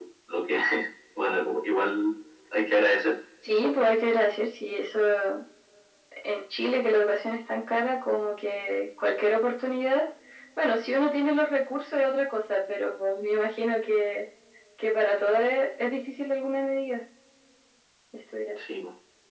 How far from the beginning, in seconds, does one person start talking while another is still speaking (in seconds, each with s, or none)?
none